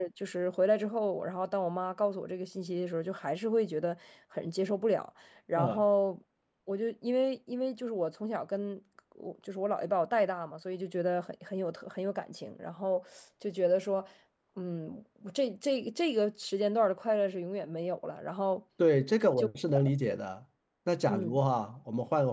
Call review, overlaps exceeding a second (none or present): none